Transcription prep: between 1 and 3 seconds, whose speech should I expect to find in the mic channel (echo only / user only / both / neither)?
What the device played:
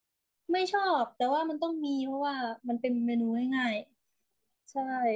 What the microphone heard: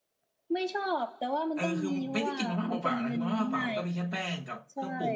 both